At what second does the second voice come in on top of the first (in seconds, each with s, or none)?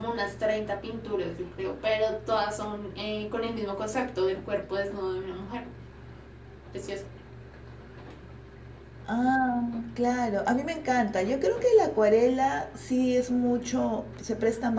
none